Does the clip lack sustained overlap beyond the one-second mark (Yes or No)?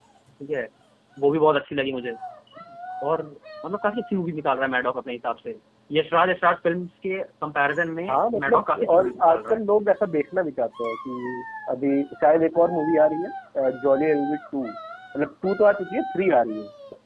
No